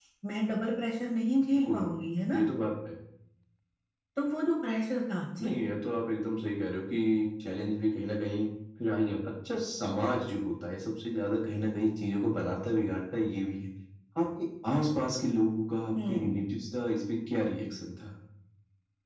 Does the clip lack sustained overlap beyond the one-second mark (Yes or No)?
Yes